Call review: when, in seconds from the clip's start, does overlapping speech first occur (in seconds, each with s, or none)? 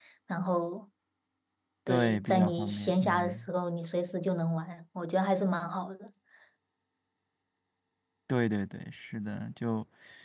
1.9 s